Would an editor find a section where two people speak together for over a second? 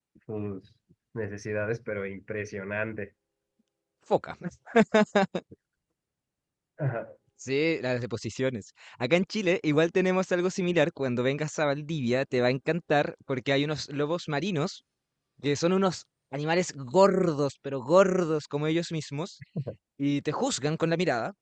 No

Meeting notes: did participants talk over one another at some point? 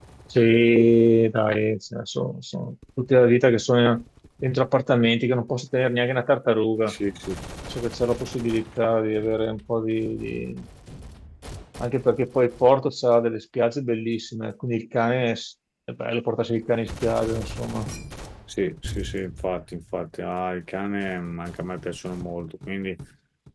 No

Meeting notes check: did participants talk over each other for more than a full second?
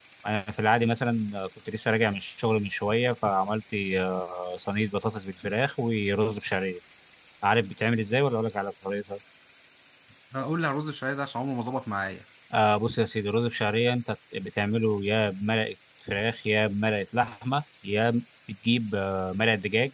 No

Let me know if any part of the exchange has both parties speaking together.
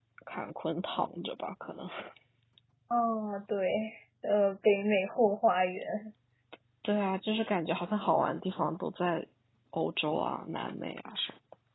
No

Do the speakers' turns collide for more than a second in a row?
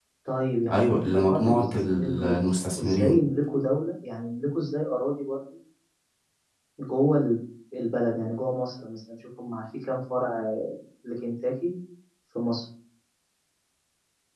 Yes, from 0.7 s

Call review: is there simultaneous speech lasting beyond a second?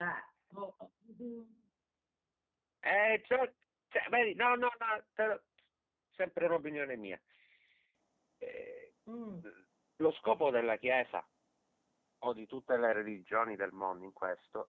No

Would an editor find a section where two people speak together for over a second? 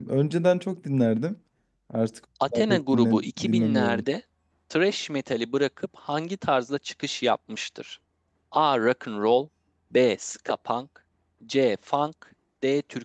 Yes, from 2.5 s

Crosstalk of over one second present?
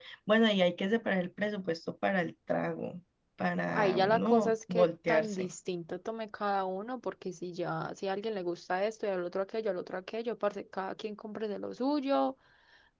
Yes, from 3.7 s

